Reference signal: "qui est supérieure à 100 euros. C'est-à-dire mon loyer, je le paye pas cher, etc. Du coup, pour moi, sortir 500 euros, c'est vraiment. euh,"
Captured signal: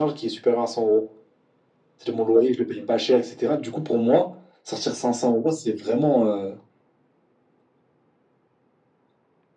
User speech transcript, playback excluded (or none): none